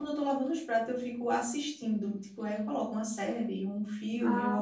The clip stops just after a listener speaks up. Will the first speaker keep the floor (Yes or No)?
Yes